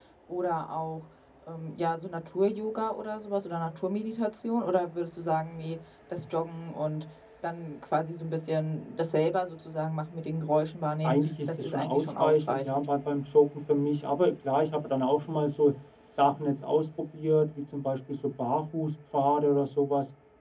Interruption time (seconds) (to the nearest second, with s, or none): 11 s